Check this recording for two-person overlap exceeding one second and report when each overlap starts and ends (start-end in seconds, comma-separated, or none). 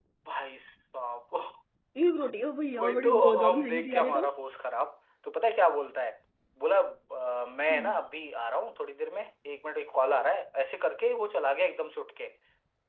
2.8-4.3